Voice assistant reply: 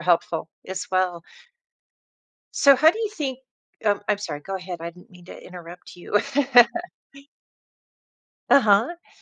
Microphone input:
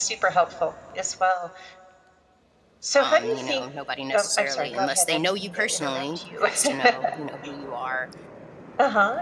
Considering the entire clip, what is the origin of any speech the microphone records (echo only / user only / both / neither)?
both